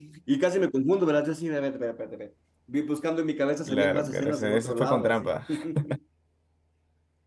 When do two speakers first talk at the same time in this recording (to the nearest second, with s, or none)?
4 s